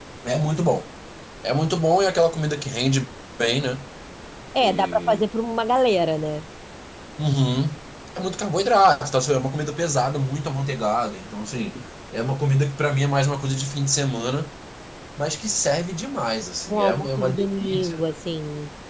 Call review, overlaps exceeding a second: present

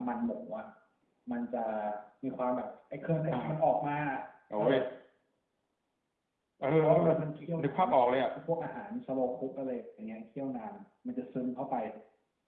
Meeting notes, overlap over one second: none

